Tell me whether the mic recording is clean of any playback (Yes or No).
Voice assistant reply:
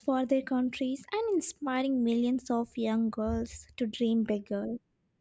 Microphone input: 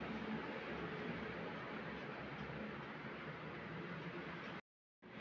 Yes